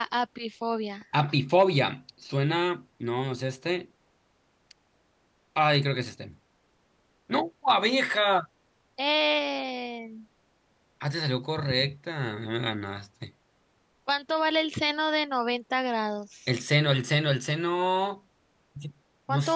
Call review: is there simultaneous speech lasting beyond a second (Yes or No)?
No